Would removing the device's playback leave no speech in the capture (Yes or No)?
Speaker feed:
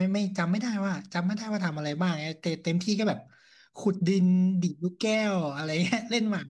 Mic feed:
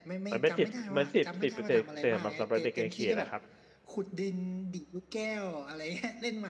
No